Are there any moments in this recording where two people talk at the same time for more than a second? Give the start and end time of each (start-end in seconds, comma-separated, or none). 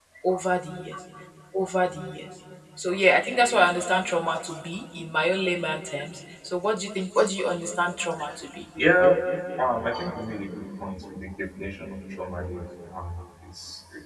none